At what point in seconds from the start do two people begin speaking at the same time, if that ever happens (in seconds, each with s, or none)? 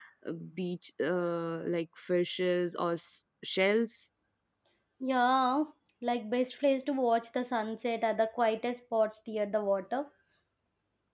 none